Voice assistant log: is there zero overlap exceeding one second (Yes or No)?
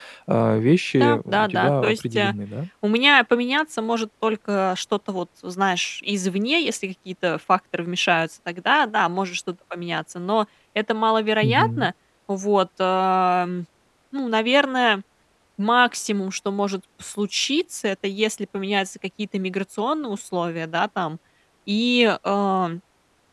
No